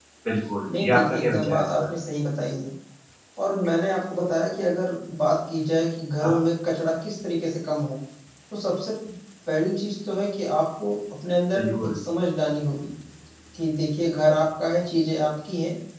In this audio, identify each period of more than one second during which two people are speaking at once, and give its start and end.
0.7-1.9

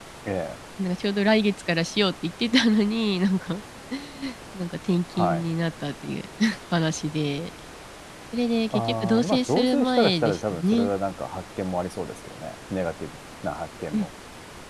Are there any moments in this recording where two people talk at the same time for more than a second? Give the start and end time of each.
8.7-10.9

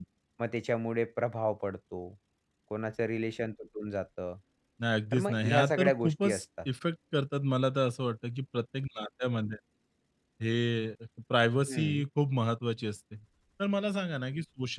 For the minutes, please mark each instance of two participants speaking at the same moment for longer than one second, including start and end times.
5.1-6.4

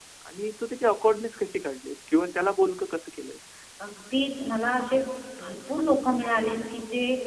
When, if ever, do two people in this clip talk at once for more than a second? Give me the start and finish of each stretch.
none

